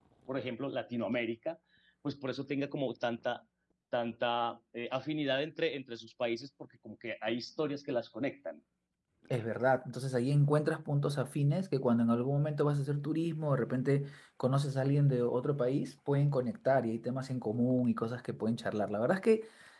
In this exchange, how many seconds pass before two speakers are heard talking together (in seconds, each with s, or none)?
none